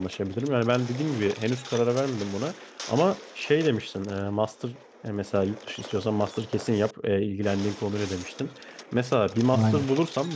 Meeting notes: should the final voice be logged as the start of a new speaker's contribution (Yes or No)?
No